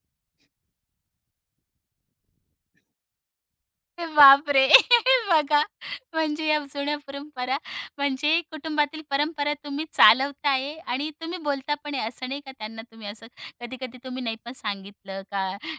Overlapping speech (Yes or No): No